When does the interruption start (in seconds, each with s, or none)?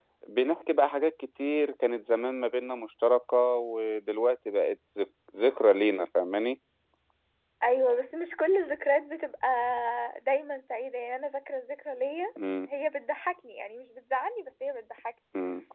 none